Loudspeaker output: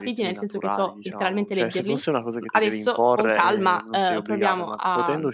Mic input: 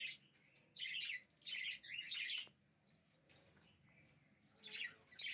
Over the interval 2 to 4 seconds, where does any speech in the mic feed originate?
neither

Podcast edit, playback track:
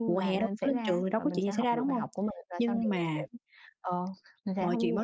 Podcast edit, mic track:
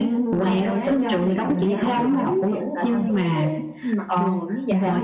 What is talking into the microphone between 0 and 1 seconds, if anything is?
both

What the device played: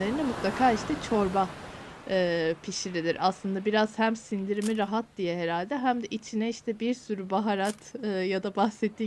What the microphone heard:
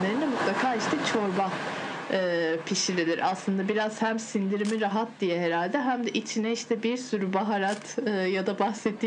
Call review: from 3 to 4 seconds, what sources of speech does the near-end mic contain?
echo only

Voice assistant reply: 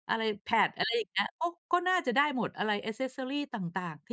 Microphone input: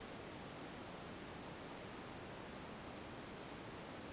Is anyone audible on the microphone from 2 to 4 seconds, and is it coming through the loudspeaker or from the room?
neither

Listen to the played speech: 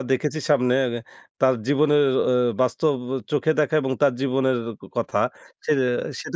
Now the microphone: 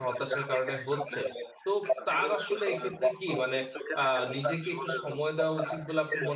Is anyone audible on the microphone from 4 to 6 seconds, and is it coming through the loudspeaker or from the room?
both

